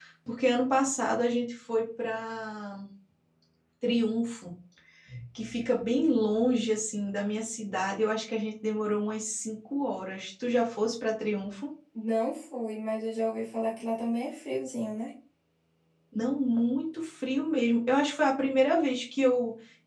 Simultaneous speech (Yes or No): No